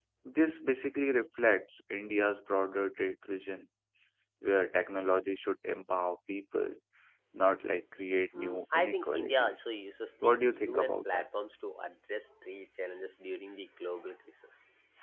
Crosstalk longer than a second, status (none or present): present